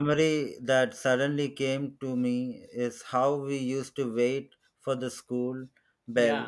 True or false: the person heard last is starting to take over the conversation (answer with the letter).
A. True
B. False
B